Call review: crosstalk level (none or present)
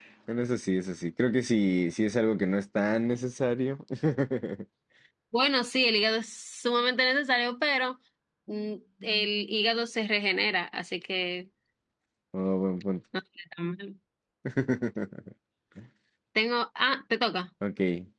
none